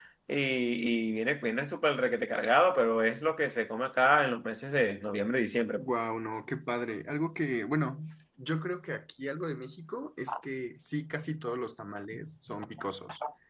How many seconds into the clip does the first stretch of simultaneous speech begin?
none

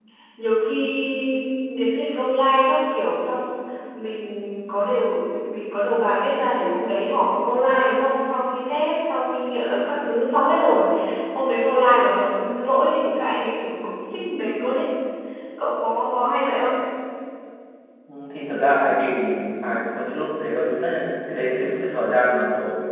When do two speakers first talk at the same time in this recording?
none

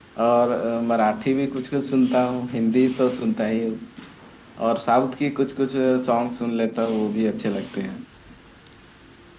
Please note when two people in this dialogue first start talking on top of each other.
none

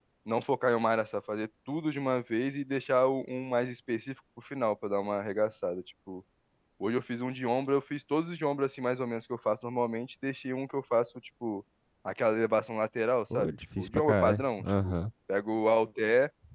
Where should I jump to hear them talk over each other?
13.3 s

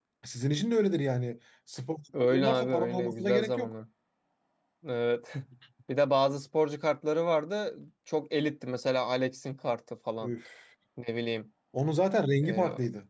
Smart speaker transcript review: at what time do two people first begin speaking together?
2.2 s

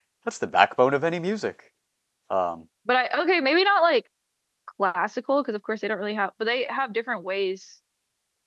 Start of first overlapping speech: none

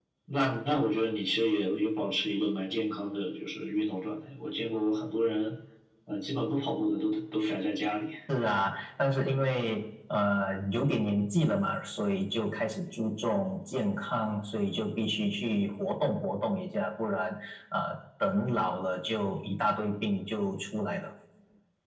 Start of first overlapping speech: none

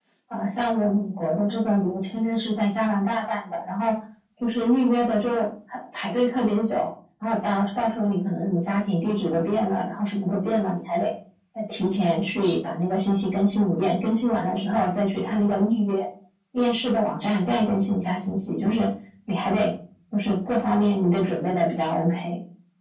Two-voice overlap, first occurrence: none

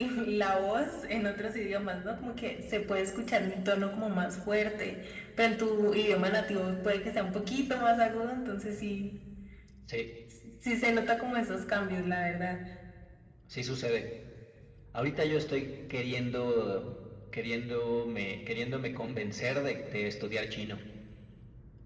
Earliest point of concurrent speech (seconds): none

